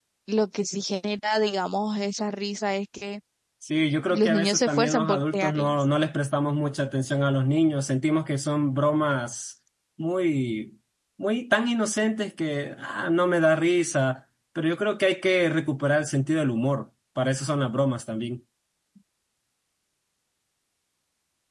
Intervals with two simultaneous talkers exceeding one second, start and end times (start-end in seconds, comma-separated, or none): 4.1-5.8